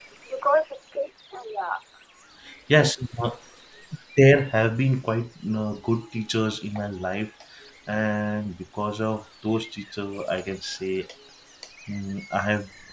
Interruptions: none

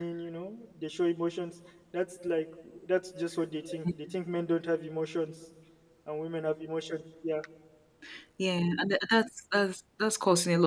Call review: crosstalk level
none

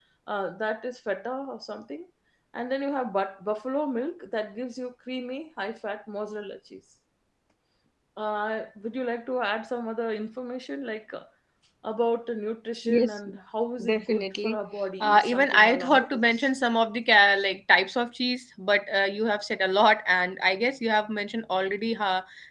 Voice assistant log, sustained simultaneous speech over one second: present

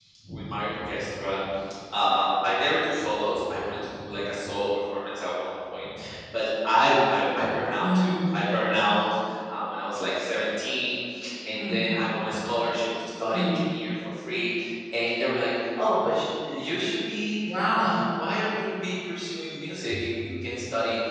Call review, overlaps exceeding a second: none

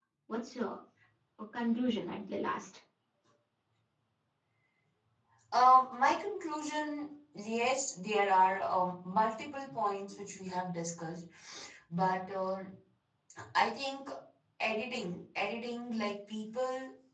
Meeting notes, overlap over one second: none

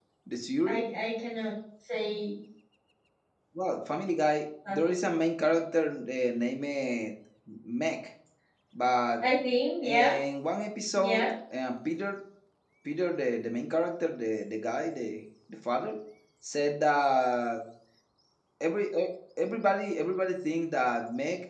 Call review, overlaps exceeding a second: none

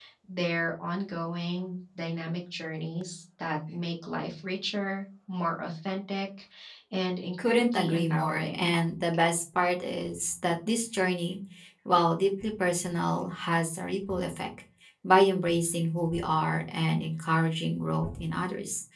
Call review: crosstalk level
present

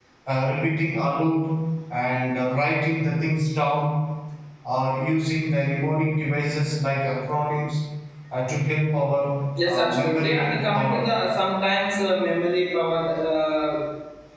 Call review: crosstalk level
present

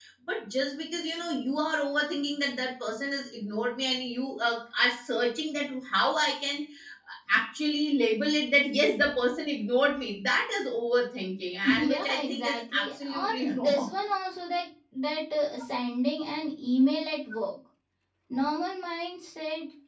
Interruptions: present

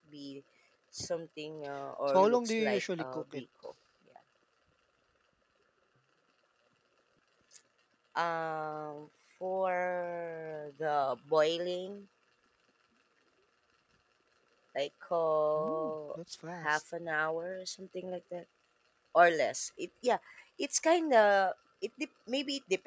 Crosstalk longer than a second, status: present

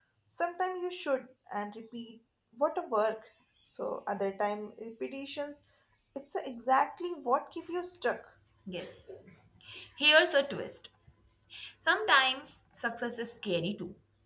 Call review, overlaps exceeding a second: none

